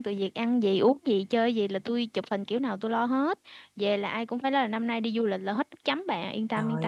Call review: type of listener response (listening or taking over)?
taking over